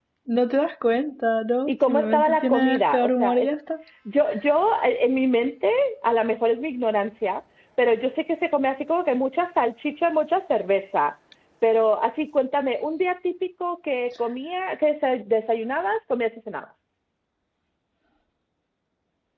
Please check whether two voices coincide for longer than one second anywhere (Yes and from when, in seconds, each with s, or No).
Yes, from 1.7 s